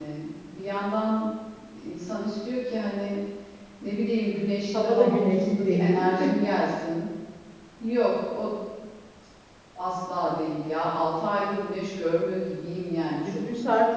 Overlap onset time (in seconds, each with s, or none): 4.7 s